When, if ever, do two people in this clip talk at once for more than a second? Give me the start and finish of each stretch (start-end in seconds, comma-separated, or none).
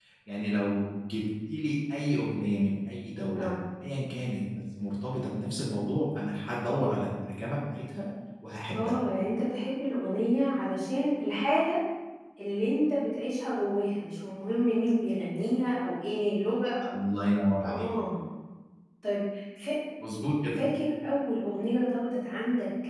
none